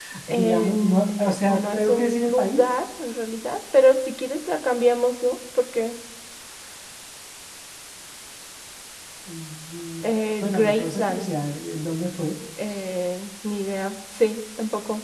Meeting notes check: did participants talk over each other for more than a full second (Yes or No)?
Yes